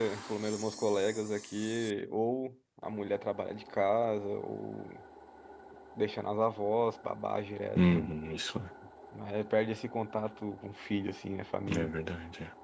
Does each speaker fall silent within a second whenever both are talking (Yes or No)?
Yes